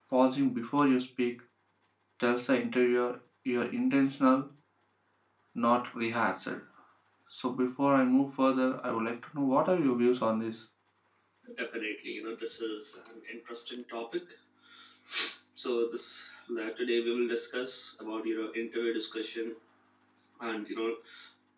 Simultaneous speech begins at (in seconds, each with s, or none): none